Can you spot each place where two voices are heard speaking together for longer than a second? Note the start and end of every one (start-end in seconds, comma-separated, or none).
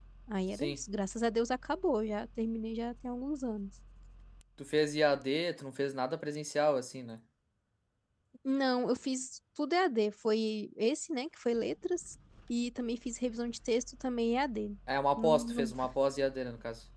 none